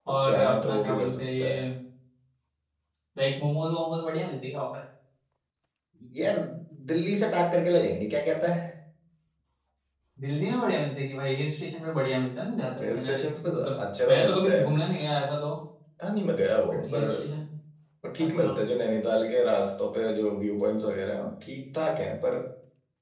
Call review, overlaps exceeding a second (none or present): present